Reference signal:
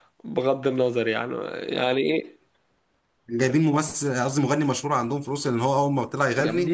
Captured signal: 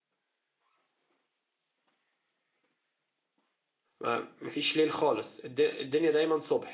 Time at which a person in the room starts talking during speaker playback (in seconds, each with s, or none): 4.0 s